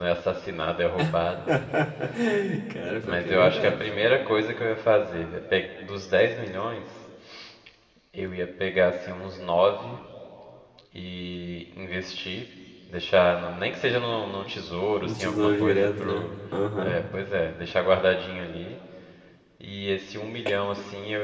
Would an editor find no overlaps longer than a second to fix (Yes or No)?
No